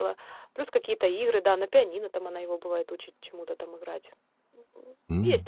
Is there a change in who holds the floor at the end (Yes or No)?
Yes